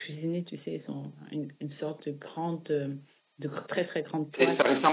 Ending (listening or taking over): taking over